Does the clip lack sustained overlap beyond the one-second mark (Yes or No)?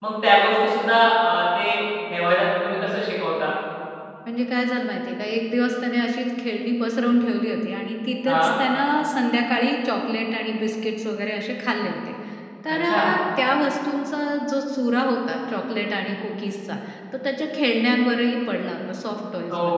Yes